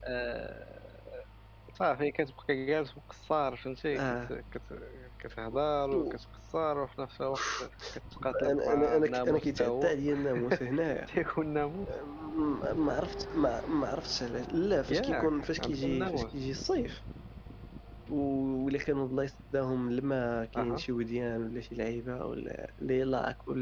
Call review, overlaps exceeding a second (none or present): present